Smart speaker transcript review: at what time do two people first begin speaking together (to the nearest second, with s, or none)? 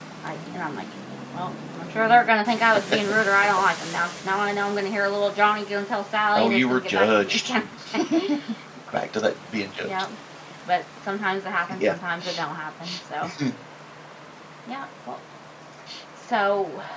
6 s